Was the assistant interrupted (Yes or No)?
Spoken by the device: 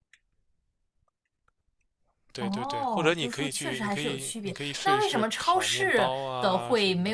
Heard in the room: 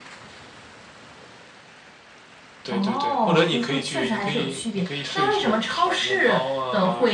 No